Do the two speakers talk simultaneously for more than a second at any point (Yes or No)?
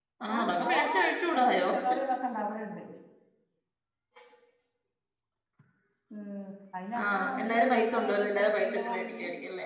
Yes